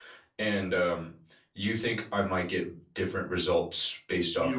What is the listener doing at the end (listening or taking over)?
taking over